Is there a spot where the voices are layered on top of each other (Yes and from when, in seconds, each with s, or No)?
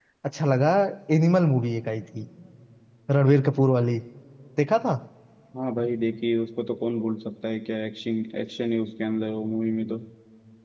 No